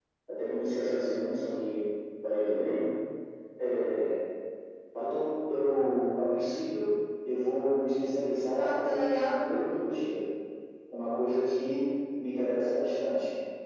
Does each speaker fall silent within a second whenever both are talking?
No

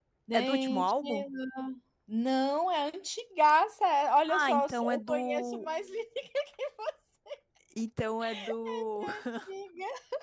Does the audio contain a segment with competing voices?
Yes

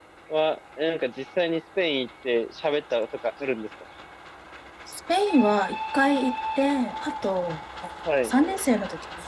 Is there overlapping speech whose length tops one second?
No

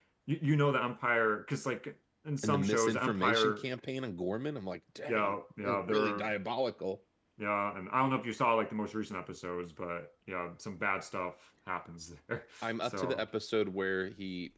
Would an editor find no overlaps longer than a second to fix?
No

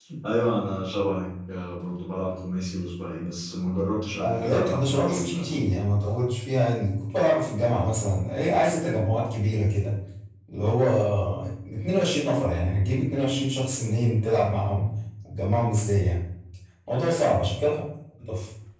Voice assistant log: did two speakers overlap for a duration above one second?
Yes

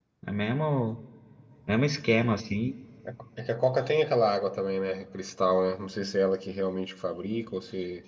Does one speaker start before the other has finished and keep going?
No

